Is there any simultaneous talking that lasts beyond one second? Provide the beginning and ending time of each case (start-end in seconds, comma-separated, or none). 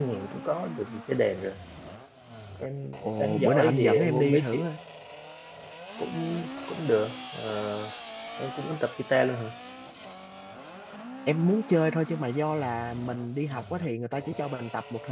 3.0-4.7